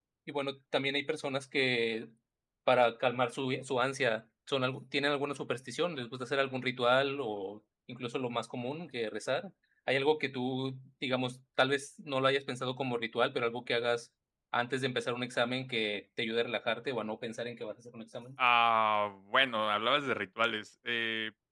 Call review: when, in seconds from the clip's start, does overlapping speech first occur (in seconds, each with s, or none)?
none